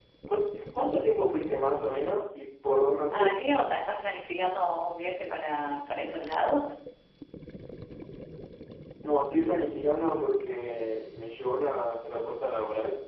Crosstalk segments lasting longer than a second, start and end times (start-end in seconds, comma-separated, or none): none